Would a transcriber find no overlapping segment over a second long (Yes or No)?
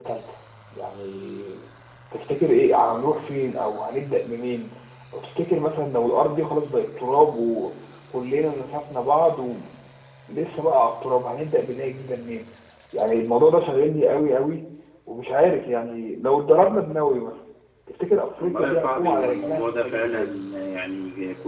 No